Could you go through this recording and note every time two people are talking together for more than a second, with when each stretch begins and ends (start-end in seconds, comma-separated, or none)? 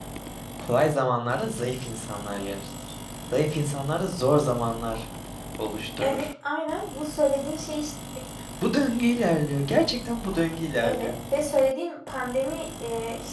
none